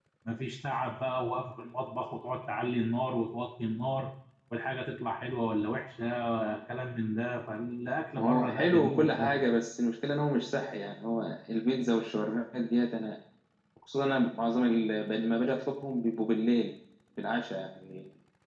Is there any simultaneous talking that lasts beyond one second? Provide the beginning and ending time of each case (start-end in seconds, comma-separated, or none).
8.2-9.5